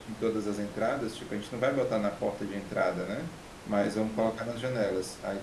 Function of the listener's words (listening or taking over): listening